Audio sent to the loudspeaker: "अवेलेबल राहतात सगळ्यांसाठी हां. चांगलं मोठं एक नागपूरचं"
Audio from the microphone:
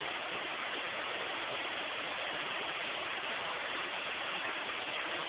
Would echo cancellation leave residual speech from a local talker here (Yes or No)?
No